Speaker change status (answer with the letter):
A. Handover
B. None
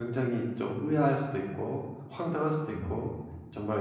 B